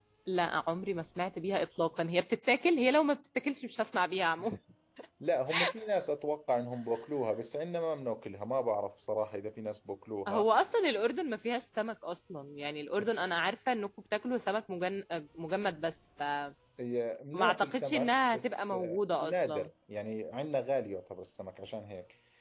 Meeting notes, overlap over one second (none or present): present